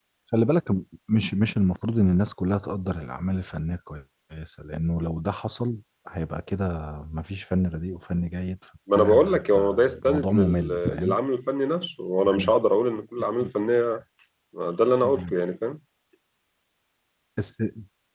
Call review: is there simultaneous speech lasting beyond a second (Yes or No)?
Yes